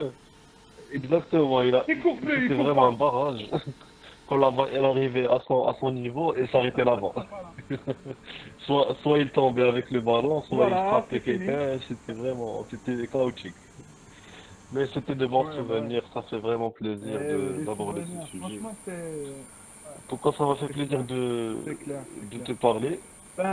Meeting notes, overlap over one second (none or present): present